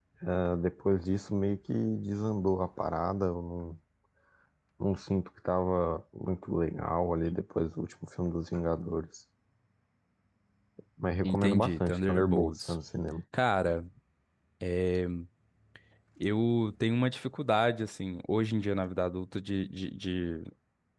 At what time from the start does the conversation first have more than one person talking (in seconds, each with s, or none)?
11.2 s